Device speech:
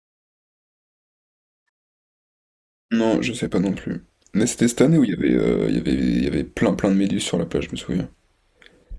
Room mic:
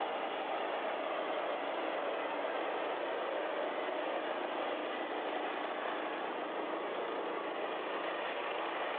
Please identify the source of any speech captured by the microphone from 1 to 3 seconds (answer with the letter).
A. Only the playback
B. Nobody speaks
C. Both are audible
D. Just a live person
B